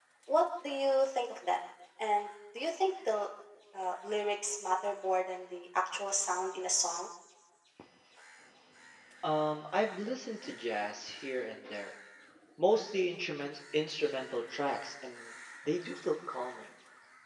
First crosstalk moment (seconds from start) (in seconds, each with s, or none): none